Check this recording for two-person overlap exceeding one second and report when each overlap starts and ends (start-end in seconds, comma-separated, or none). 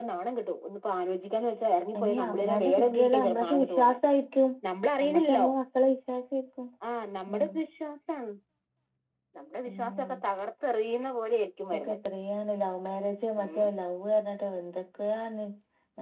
2.0-4.0